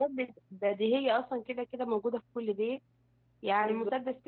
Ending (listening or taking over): listening